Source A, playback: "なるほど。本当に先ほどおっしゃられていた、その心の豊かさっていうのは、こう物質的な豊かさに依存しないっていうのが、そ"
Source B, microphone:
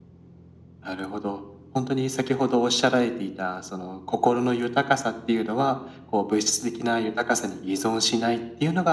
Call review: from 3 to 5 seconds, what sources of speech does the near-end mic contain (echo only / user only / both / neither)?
echo only